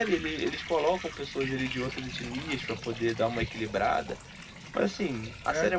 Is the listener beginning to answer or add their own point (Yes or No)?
No